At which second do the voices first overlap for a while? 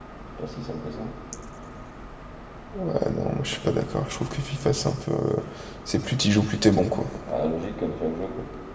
none

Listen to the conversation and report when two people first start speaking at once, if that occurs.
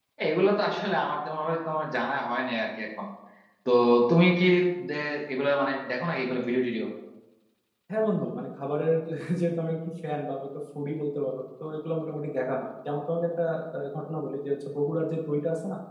none

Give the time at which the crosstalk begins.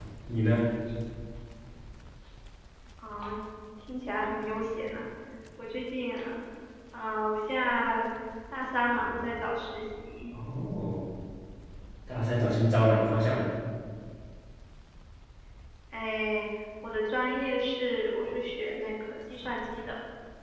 none

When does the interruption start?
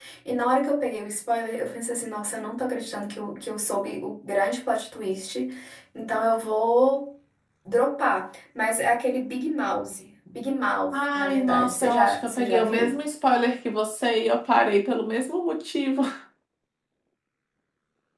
10.9 s

